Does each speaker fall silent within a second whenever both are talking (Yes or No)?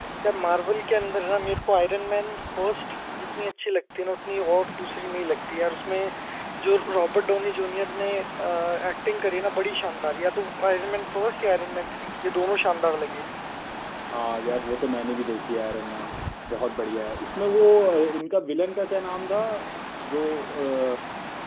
Yes